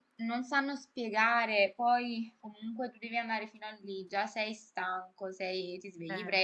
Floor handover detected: No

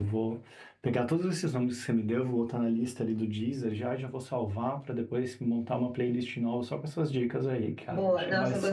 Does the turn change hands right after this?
Yes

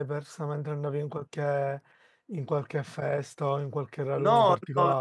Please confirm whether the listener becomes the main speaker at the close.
Yes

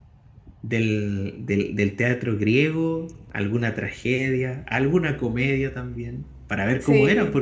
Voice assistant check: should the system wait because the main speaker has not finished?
Yes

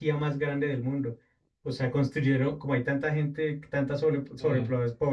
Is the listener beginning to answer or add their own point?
No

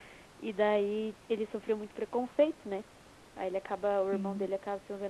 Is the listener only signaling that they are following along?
Yes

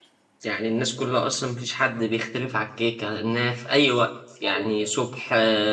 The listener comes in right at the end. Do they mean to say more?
No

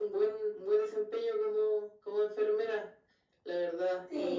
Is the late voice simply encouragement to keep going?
No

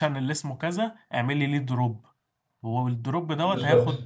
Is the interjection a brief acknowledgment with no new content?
Yes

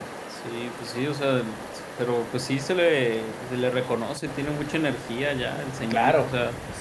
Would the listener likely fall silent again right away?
No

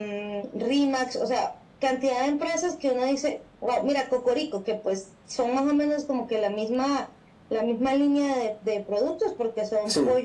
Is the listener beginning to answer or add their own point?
No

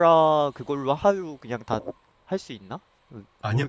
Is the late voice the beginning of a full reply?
Yes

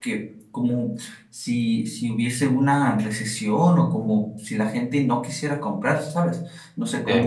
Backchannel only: Yes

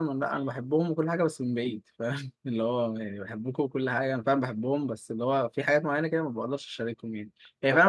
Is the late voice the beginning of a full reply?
Yes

